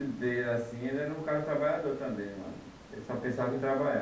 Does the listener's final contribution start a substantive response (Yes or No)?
Yes